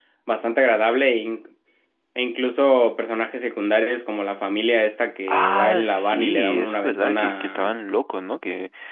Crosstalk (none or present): present